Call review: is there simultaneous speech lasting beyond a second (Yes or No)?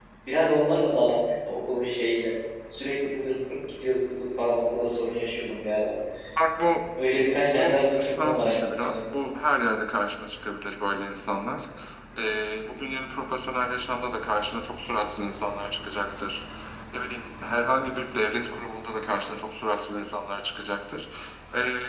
Yes